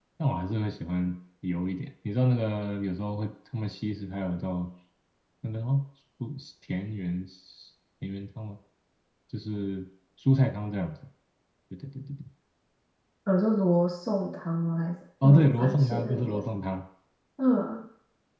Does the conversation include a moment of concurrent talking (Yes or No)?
Yes